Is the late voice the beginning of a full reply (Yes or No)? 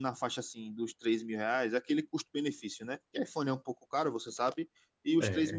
No